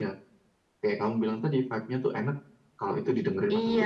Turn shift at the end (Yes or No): Yes